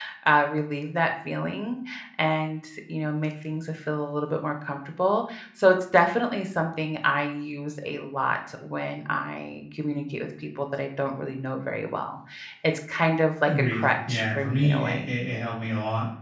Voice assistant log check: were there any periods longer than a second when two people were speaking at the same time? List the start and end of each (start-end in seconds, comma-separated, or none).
13.5-15.1